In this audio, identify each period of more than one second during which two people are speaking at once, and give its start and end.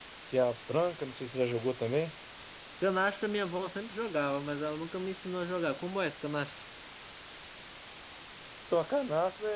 none

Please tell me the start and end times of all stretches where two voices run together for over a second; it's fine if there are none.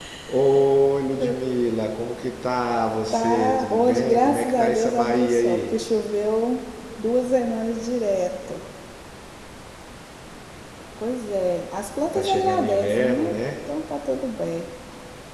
3.1-5.8, 12.1-13.3

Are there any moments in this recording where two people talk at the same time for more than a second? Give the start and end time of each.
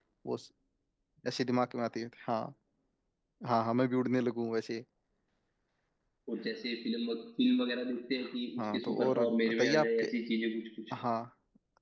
8.6-10.1

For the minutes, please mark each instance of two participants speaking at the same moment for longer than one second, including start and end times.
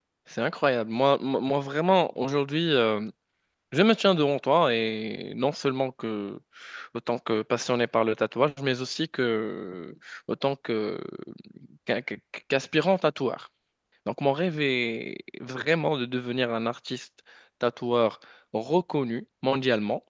none

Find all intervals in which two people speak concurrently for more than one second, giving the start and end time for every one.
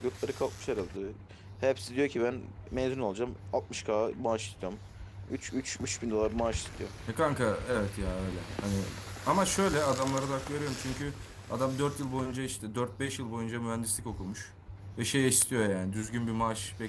none

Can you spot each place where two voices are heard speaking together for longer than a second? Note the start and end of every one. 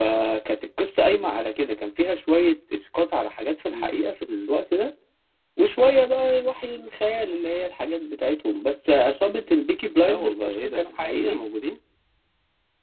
9.9-11.4

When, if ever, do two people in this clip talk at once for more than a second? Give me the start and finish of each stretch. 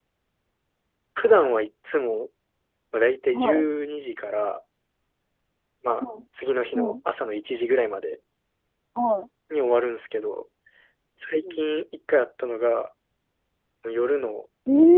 none

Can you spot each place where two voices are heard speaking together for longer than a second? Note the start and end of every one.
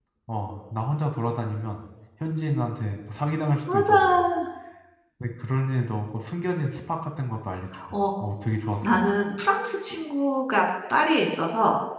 none

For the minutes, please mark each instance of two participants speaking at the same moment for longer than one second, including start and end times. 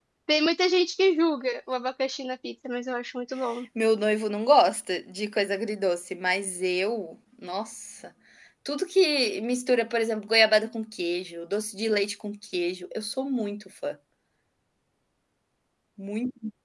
none

